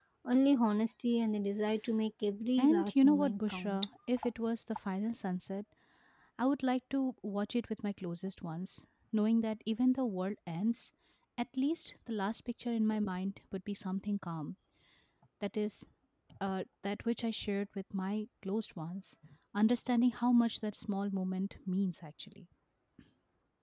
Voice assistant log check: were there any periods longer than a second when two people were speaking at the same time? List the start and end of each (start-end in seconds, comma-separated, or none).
2.6-3.8